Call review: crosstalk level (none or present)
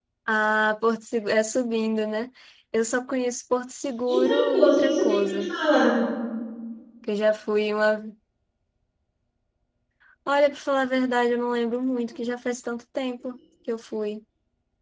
present